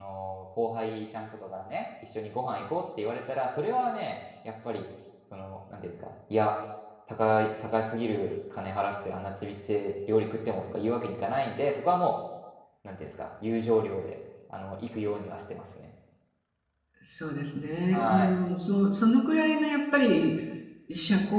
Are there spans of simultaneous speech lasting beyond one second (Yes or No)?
No